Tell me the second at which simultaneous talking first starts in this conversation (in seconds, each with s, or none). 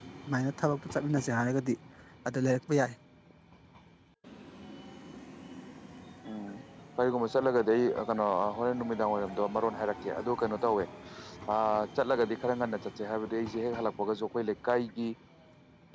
none